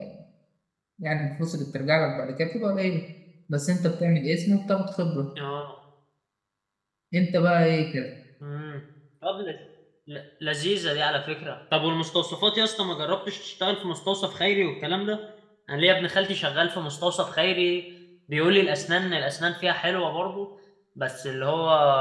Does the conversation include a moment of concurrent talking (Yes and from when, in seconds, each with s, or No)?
No